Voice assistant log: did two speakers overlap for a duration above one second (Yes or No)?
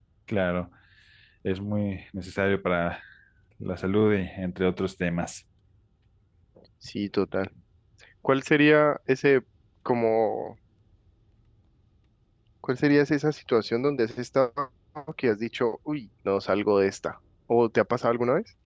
No